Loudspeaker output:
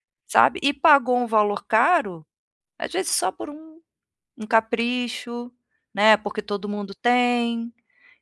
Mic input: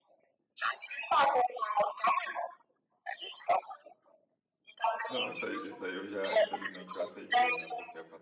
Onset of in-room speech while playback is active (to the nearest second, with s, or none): 5 s